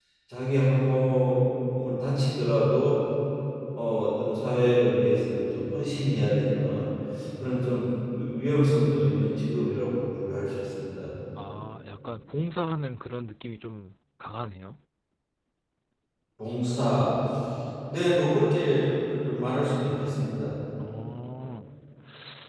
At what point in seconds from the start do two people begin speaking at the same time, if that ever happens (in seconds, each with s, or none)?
none